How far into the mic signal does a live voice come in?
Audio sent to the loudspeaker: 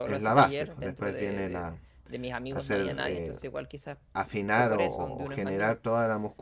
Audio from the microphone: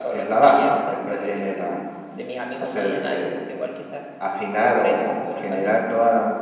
none

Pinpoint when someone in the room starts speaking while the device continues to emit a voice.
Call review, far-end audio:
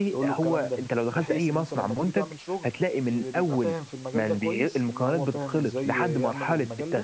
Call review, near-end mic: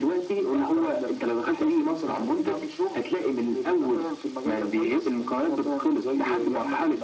none

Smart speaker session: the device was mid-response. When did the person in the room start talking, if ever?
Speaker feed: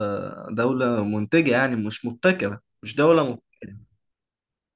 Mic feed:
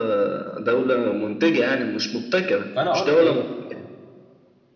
2.7 s

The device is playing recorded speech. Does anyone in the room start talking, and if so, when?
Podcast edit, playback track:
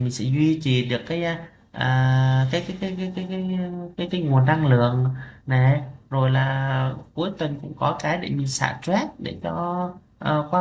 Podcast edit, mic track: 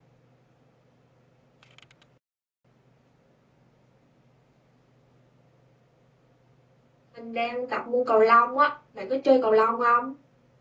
7.2 s

